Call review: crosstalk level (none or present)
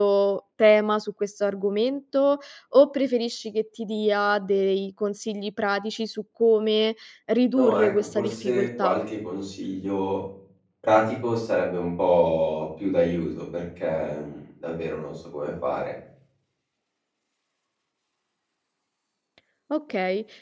present